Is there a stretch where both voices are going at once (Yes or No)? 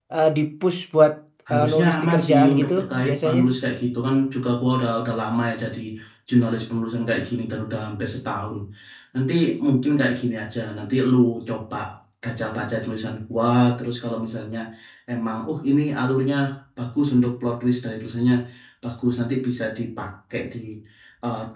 Yes